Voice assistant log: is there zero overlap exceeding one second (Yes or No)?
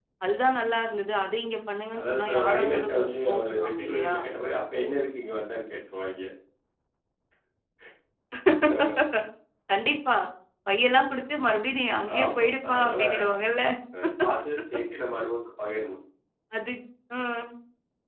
No